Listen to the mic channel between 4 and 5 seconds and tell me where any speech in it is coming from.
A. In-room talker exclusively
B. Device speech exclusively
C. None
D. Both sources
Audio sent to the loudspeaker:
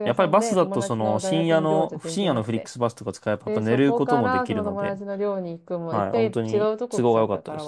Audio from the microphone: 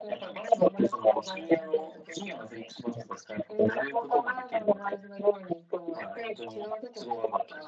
B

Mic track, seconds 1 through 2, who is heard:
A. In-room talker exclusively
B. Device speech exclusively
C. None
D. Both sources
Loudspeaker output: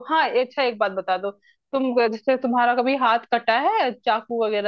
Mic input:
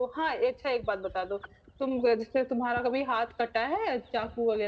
B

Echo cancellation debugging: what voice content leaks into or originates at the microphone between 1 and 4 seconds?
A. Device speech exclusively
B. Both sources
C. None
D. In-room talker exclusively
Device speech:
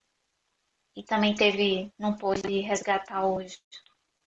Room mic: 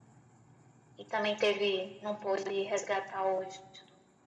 A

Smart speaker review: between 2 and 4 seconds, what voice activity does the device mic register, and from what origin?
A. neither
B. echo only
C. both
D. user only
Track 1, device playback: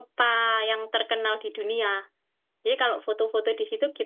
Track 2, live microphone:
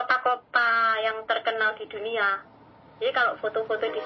B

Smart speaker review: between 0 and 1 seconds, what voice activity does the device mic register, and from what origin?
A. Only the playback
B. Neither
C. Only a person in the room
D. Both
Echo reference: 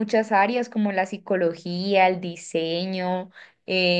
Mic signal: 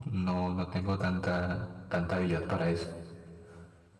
C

